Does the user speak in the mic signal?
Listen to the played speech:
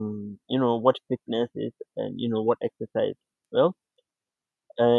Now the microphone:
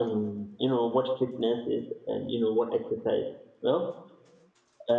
No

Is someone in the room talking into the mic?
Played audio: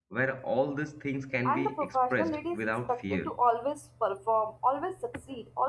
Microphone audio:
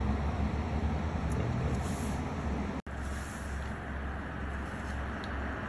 No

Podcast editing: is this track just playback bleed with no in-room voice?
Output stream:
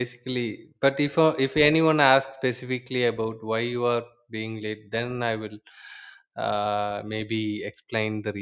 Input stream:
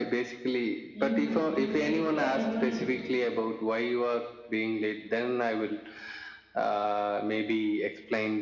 No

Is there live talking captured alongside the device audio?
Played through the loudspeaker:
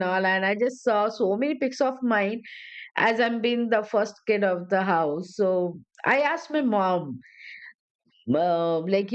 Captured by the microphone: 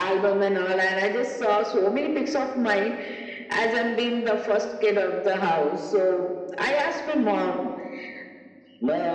No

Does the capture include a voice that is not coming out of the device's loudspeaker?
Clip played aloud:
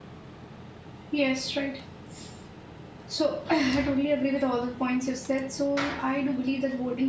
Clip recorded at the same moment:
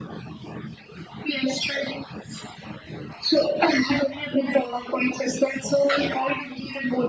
No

